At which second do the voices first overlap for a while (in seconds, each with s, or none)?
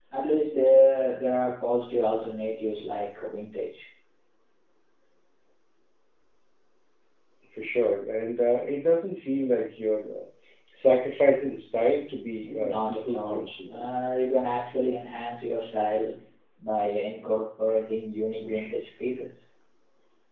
12.4 s